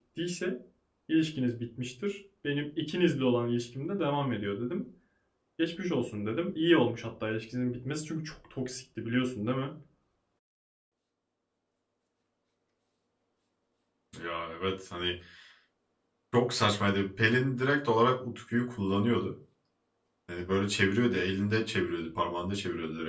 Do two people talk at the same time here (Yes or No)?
No